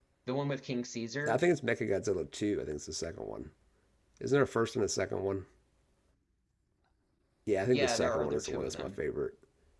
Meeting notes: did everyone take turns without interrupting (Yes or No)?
No